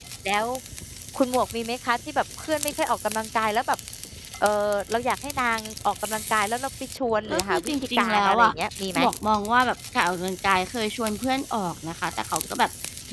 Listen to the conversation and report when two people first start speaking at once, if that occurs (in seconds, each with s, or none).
7.3 s